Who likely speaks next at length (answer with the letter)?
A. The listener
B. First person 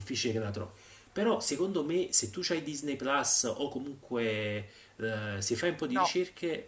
B